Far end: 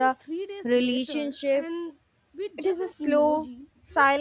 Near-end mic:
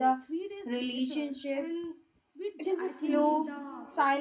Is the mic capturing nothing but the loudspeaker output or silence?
No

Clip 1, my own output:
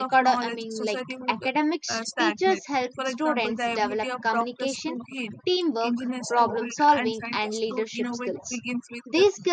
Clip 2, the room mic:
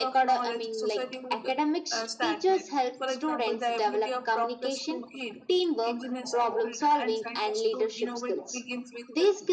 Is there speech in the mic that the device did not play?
No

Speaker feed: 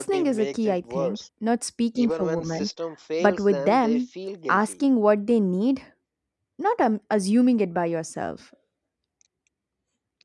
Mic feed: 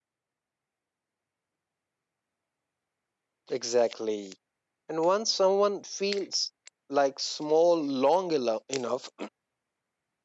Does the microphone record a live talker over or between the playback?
Yes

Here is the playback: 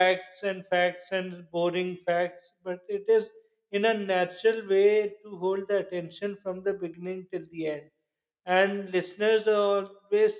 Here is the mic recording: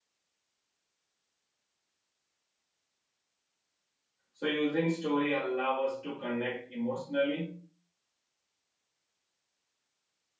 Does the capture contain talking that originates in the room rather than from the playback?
Yes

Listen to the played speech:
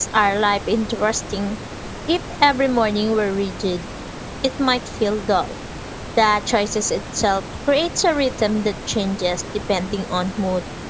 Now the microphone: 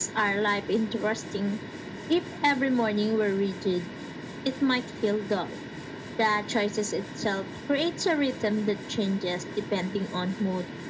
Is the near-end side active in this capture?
No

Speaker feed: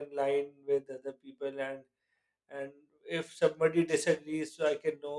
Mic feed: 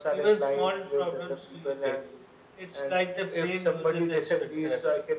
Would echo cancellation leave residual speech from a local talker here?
Yes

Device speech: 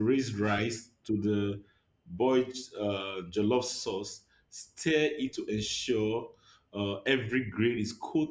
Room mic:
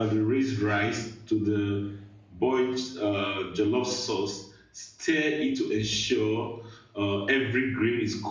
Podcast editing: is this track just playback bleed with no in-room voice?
Yes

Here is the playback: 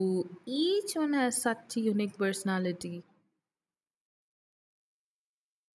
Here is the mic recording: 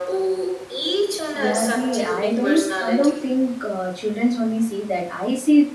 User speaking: Yes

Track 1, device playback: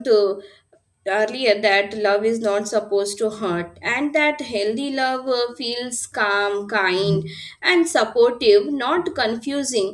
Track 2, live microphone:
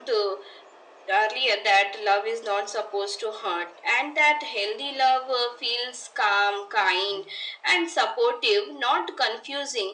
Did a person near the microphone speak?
No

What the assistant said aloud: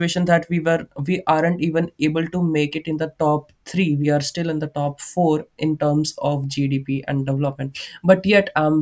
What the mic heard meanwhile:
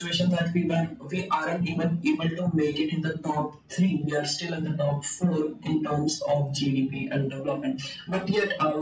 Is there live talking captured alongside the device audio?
No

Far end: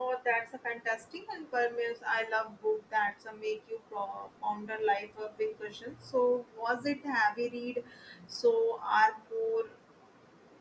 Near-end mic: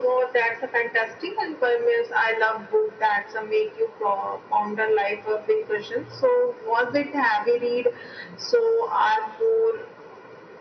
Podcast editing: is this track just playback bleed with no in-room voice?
Yes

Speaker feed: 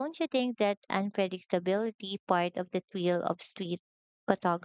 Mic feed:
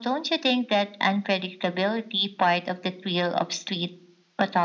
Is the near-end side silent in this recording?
Yes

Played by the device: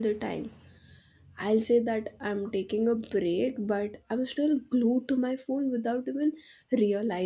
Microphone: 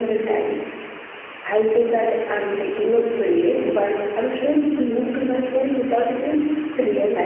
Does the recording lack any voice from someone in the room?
Yes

